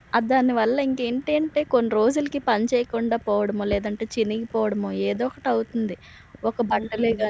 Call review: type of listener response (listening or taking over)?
listening